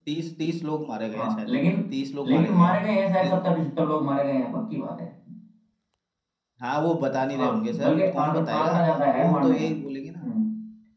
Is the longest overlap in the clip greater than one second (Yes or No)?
Yes